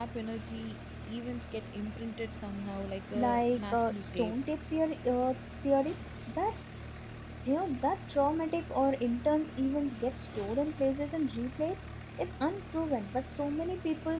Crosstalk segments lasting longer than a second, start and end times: 3.2-4.4

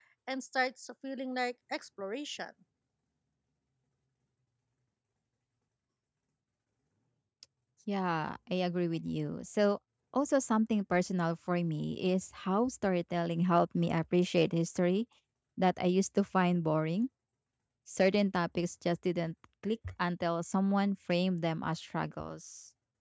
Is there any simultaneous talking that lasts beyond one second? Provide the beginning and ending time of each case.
none

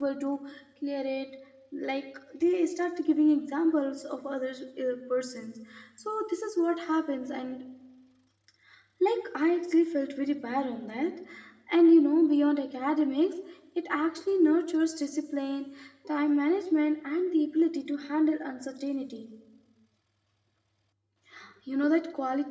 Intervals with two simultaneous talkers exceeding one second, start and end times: none

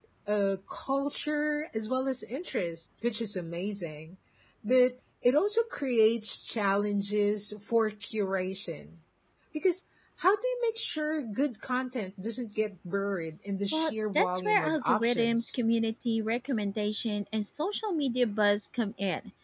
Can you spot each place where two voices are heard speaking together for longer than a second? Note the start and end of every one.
13.7-15.5

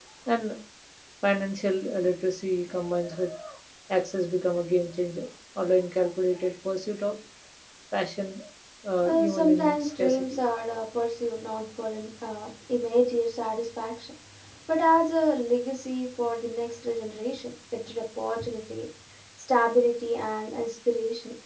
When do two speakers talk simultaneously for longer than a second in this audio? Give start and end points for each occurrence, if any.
9.1-10.4

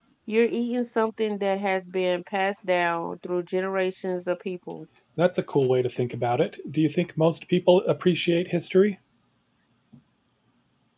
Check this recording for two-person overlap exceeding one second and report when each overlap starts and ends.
none

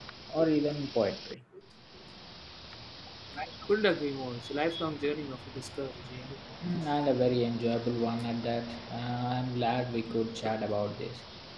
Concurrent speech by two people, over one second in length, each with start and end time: none

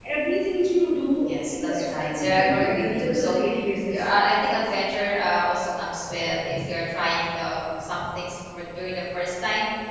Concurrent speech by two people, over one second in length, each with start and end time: 1.5-3.4

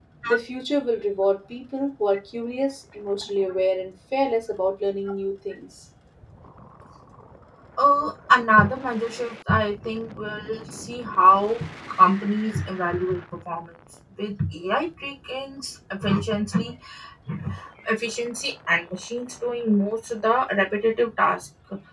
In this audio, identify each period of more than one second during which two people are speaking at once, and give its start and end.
none

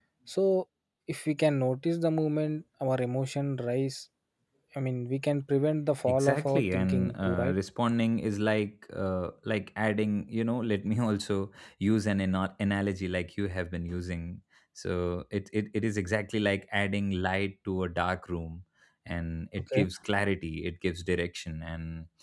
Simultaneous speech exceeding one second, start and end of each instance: 6.0-7.5

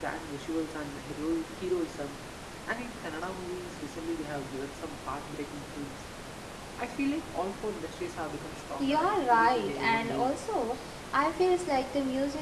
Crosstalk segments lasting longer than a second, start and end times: 8.8-10.3

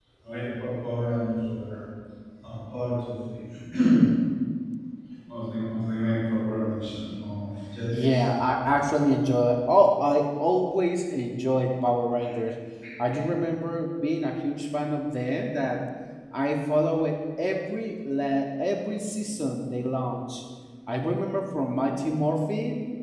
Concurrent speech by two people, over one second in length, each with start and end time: none

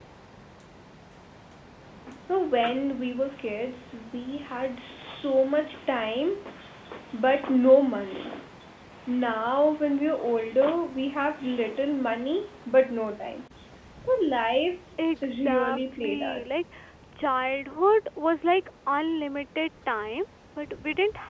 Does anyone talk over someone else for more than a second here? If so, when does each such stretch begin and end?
15.2-16.6

